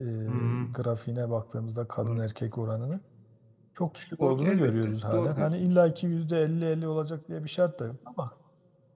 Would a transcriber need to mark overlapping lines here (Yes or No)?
Yes